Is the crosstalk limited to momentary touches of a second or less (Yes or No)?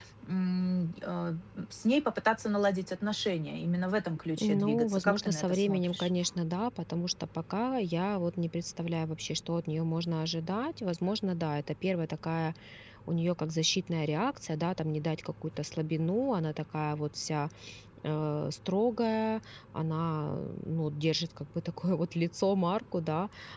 No